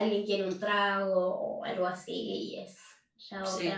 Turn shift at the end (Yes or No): Yes